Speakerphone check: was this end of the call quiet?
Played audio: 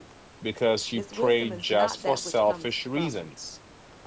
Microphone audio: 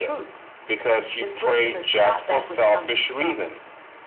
Yes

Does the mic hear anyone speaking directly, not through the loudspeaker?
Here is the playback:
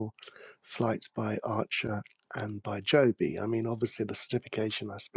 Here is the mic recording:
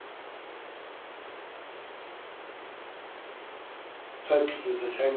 Yes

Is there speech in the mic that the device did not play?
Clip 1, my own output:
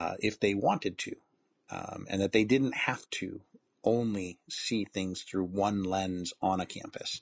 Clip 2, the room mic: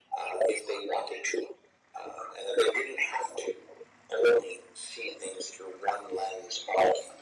No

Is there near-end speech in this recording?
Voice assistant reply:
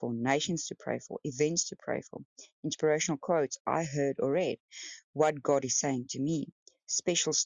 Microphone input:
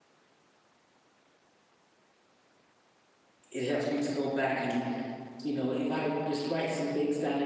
Yes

